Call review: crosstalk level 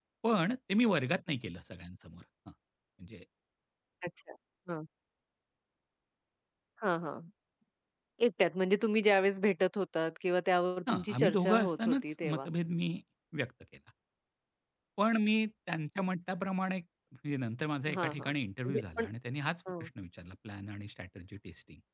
present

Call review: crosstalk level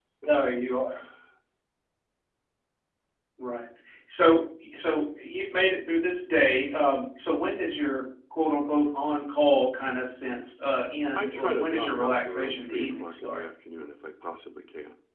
present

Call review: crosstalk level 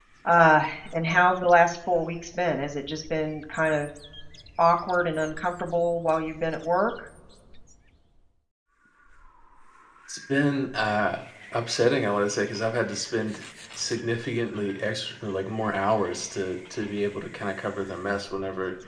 none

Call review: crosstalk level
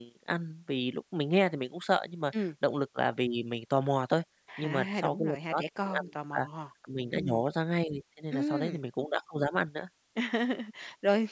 present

